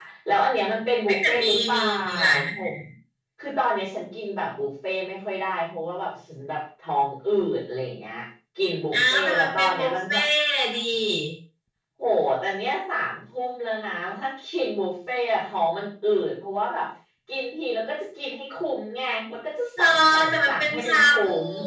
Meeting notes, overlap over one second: present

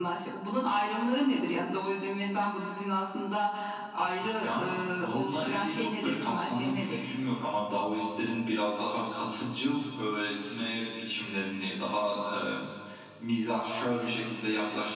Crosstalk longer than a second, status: present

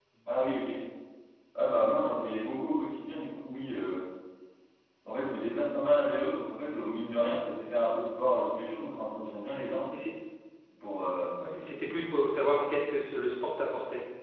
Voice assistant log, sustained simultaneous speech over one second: none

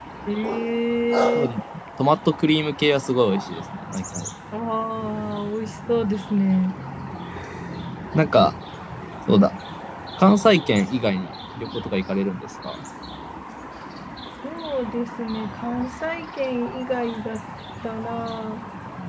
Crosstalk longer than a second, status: none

